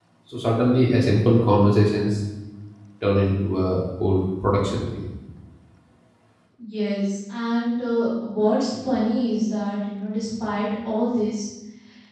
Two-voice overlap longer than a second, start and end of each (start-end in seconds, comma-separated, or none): none